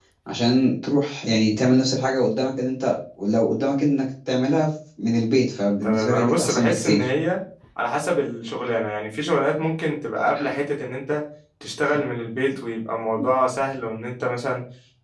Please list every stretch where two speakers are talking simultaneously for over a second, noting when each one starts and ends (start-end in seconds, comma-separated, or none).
5.8-7.1